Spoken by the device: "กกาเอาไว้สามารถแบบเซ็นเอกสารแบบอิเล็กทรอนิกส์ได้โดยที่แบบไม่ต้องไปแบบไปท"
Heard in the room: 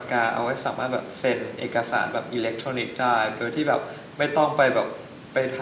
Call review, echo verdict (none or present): present